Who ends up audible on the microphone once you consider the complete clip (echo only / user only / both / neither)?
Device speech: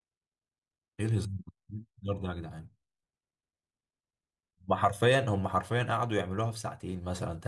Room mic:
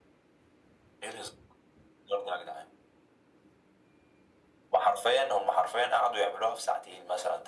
echo only